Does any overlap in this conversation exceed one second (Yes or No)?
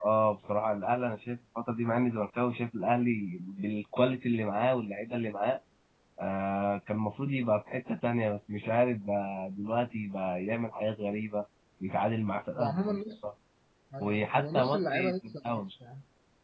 Yes